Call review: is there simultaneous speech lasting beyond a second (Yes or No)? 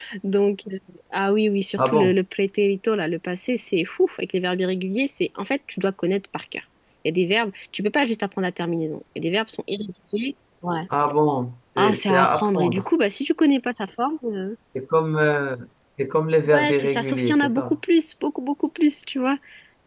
Yes